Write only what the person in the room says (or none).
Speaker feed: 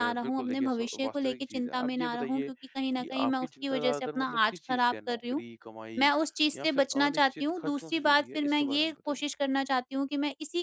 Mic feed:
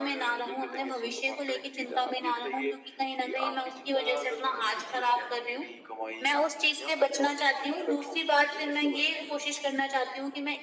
none